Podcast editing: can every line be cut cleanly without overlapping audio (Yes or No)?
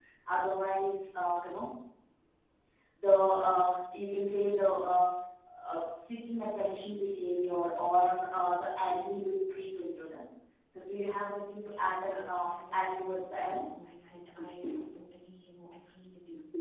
No